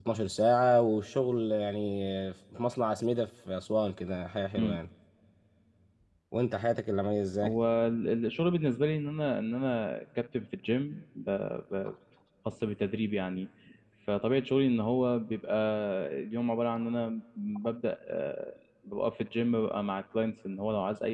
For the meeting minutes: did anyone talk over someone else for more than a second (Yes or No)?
No